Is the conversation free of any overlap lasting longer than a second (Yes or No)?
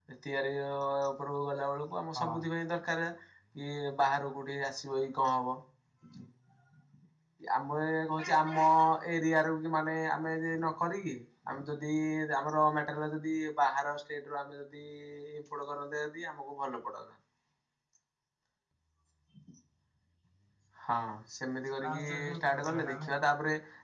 No